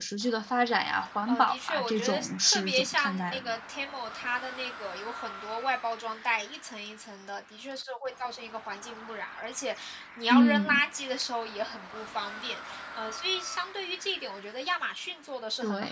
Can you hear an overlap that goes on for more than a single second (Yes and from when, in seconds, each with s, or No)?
Yes, from 1.3 s